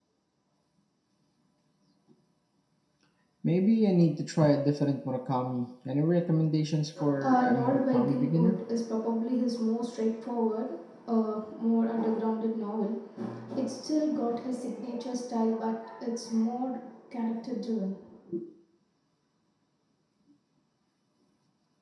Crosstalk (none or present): present